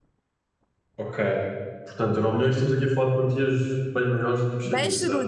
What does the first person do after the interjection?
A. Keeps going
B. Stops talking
B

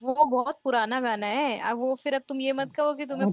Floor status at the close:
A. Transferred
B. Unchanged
A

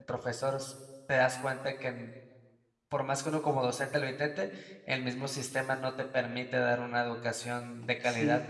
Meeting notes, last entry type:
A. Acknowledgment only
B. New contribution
B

